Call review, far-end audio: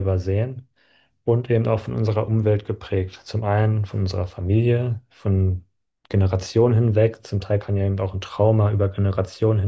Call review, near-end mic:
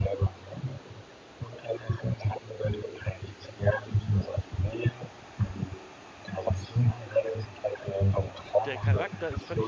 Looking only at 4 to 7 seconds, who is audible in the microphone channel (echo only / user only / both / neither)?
echo only